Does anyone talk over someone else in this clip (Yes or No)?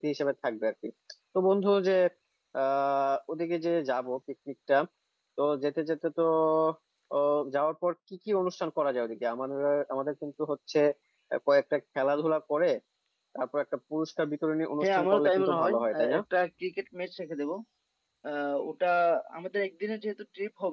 Yes